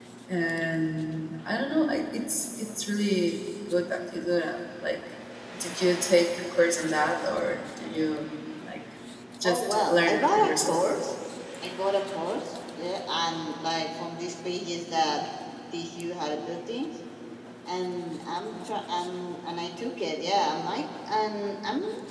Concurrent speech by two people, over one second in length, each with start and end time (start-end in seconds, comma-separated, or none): 9.4-10.8